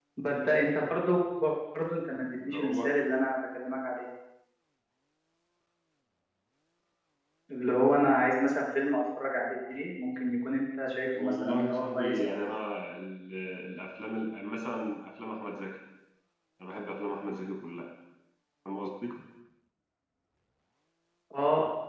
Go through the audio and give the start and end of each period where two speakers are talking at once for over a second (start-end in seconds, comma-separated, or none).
11.2-12.5